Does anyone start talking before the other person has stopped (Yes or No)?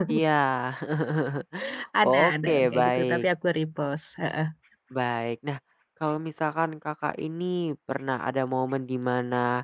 Yes